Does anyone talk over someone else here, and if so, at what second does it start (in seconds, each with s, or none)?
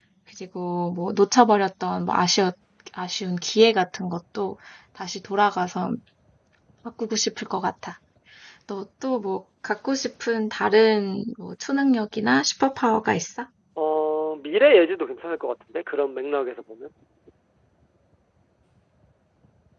none